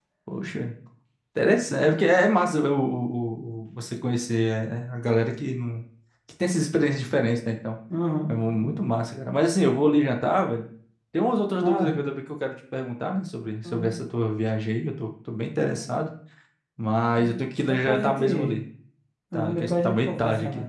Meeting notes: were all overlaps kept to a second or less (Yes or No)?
No